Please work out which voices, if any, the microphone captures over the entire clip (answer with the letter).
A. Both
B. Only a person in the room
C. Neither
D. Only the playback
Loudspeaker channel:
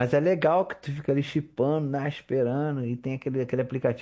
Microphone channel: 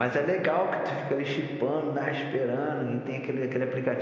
D